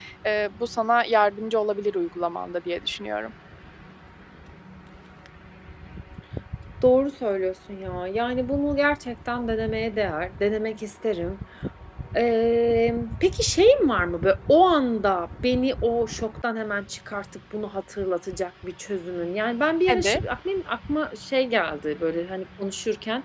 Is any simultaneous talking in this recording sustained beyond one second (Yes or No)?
No